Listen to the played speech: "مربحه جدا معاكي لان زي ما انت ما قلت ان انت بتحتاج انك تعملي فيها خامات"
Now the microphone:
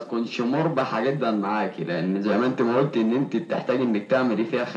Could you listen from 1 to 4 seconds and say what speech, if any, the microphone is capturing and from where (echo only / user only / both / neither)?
echo only